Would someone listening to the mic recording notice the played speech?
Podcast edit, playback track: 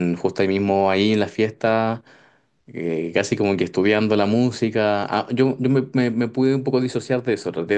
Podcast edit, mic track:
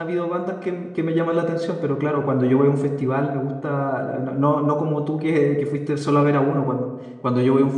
No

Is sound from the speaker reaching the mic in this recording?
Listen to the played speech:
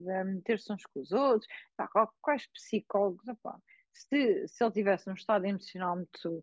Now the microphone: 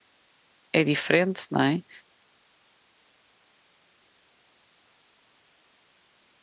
No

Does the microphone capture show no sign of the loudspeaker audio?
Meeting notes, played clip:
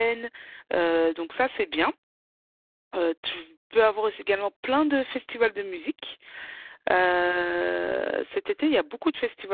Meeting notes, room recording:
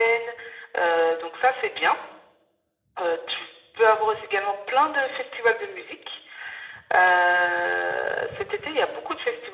No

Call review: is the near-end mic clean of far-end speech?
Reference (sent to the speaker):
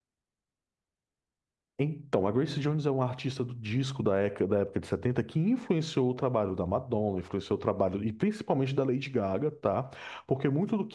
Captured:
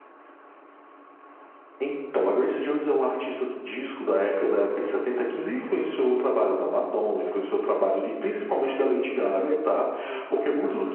No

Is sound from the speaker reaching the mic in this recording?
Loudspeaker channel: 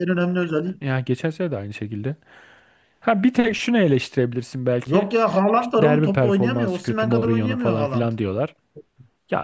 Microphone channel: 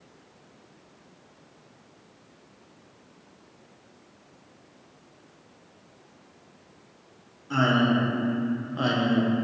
No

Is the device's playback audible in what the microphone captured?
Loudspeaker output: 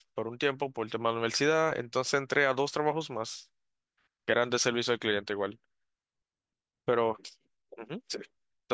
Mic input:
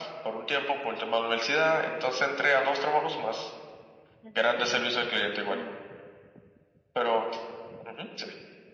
Yes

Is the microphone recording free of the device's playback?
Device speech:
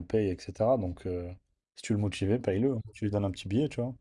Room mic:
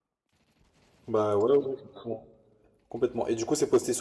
Yes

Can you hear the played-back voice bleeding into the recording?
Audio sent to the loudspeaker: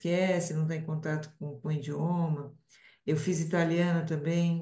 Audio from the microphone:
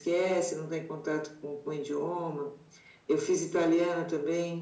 Yes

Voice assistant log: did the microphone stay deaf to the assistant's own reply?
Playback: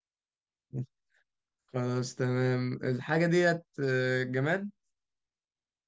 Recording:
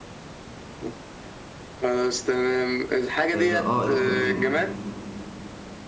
No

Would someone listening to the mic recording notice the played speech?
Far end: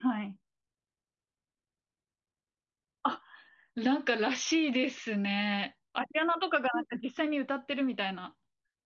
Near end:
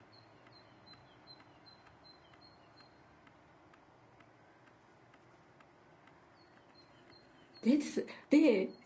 No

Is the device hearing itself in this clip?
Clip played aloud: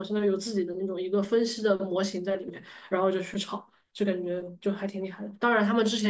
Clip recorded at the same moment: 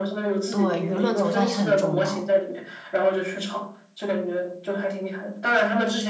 Yes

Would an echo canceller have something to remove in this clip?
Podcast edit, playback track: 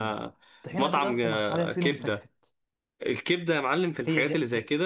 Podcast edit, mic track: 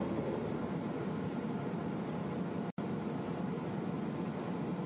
No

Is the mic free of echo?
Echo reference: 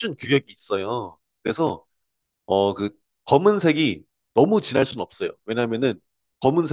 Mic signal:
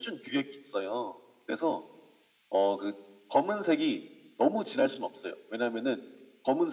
No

